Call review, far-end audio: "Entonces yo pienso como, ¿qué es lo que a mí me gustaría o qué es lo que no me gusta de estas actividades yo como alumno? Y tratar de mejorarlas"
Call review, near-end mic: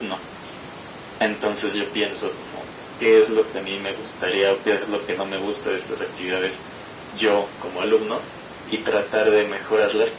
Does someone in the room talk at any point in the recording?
No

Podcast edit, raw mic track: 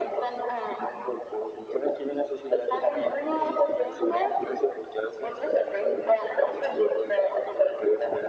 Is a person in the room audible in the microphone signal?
No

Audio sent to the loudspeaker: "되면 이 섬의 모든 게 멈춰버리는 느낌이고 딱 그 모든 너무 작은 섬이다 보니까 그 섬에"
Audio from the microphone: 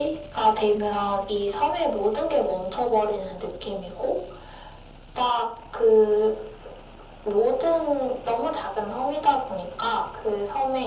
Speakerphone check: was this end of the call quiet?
Yes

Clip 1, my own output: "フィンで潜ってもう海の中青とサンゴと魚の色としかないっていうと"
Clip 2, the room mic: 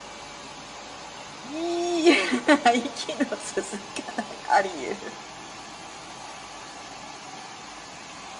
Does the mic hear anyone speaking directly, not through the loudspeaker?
Yes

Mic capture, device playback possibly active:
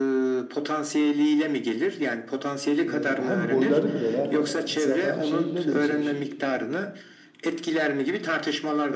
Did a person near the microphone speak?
Yes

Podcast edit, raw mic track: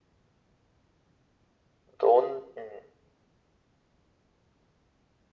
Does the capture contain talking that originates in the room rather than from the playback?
Yes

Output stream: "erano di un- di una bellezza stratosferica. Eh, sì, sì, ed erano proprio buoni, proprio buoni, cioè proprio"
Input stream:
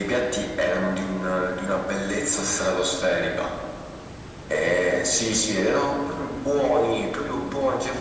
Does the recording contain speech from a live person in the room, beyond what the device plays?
No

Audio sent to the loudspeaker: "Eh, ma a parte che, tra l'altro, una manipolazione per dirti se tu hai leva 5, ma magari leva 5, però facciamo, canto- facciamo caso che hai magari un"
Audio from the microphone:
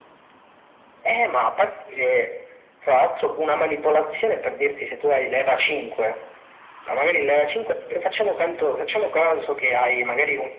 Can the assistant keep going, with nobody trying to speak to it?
Yes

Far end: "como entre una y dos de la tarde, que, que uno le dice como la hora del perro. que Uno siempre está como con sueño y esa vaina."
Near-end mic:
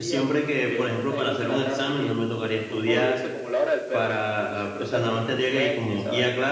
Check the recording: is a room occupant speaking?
Yes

